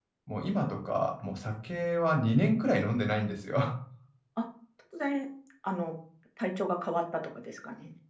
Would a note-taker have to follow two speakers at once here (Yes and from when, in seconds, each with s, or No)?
No